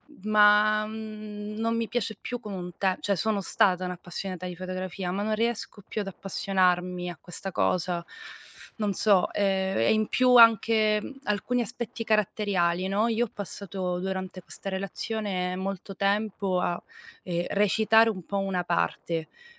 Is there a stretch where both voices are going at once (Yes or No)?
No